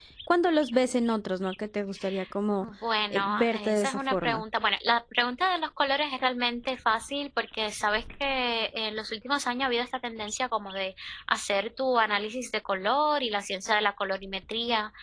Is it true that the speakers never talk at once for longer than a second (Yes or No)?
No